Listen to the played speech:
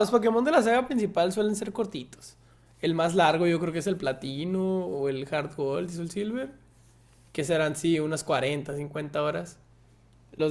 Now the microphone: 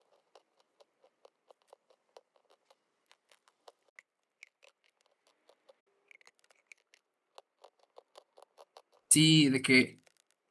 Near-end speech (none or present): present